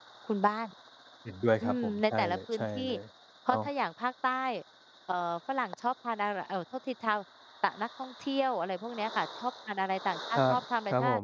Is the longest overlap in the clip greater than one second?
Yes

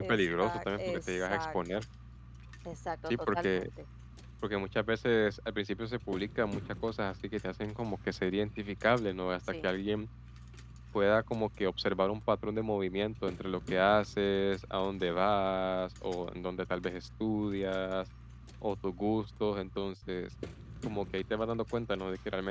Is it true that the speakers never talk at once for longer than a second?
No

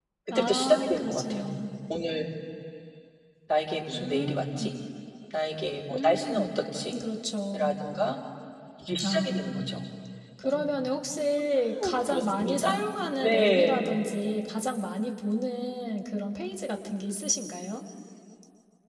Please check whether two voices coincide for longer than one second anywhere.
Yes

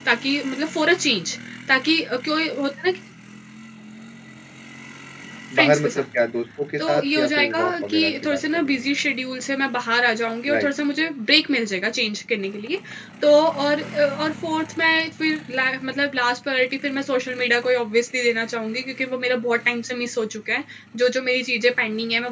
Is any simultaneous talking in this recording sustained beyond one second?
Yes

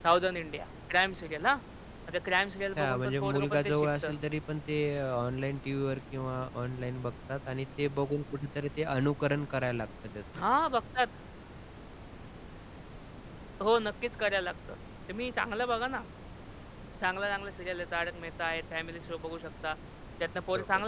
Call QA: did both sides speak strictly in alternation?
No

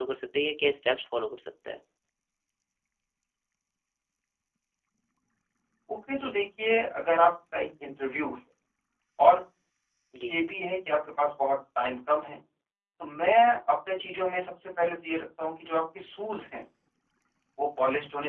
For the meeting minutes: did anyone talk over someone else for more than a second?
No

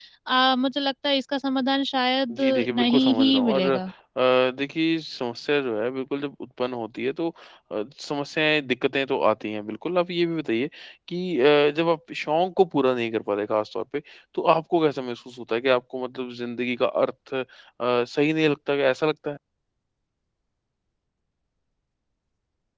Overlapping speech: Yes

